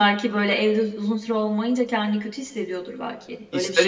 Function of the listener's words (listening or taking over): taking over